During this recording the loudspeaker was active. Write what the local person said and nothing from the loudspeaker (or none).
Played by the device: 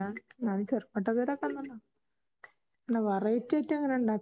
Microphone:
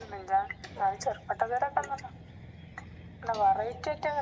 none